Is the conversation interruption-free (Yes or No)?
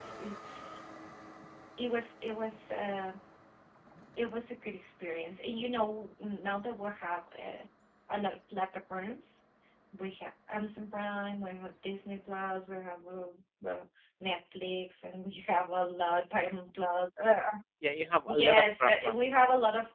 No